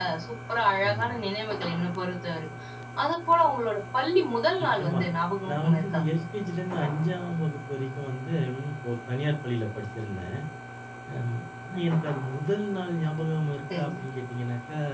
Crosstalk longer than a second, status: none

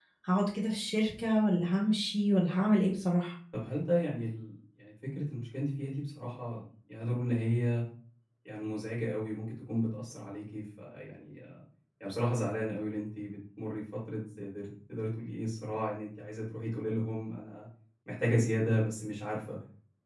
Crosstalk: none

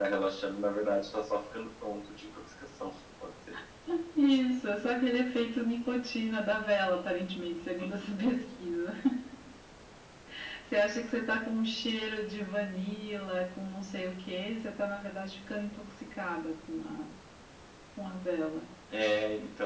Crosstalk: none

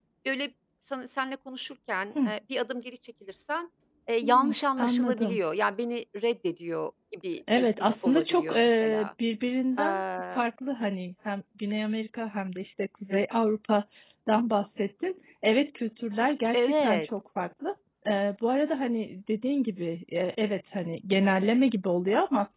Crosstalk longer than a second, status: present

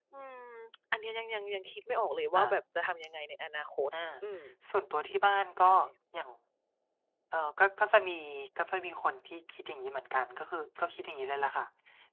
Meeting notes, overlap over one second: none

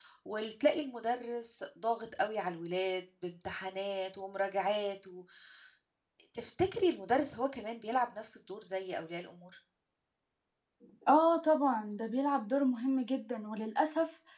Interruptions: none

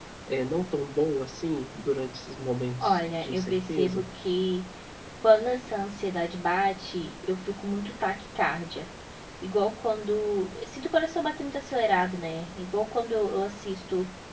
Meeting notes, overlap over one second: present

